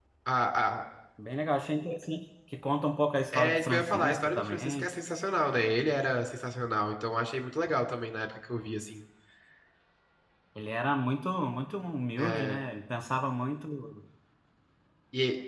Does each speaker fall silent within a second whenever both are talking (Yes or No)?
No